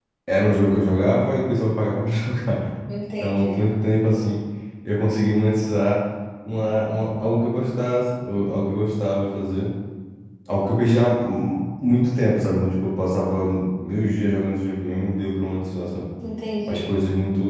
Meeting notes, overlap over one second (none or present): none